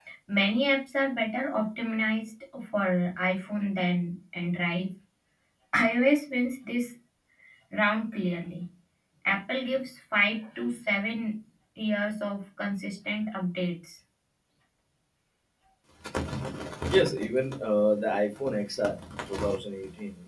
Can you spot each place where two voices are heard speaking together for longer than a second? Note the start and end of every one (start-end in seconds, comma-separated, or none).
none